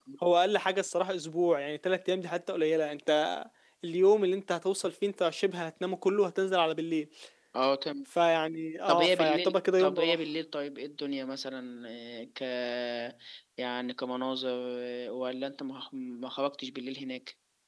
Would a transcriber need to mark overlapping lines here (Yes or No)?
Yes